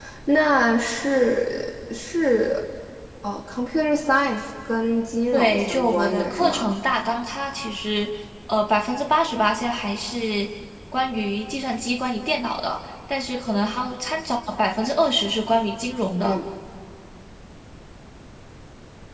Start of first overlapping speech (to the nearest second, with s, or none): 5 s